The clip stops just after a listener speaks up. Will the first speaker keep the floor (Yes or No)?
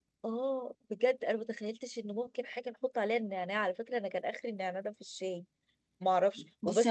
No